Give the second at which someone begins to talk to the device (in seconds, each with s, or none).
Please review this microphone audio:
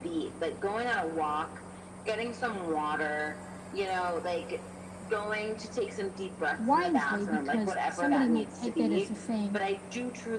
6.6 s